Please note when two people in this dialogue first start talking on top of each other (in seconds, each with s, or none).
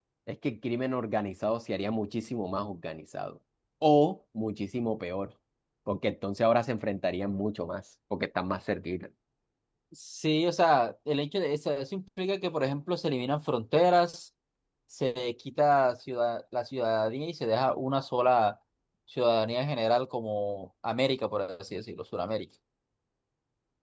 none